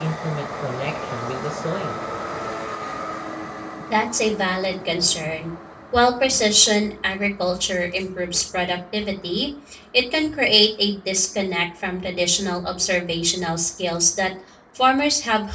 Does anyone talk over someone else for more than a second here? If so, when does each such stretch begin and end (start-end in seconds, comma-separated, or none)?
none